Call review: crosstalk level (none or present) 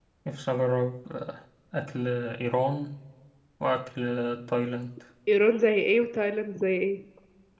none